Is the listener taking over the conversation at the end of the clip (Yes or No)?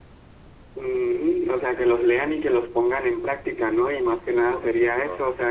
No